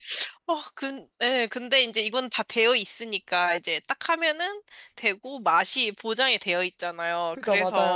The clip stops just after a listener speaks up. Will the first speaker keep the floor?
Yes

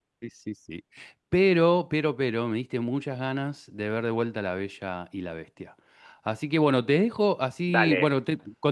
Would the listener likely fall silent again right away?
Yes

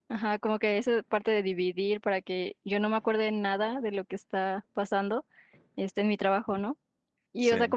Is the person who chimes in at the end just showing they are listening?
Yes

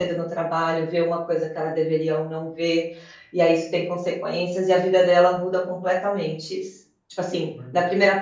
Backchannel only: Yes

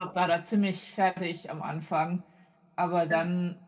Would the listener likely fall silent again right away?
Yes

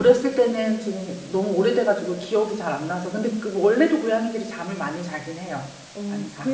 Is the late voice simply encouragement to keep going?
No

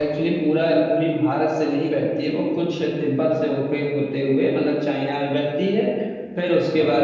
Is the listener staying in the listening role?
Yes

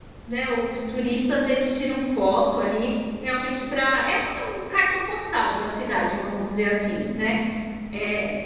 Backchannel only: Yes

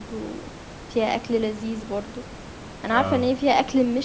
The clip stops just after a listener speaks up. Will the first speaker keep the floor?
Yes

